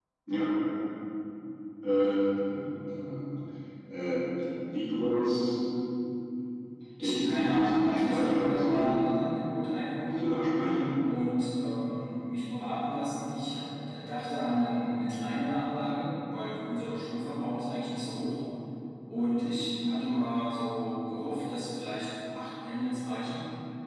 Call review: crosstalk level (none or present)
present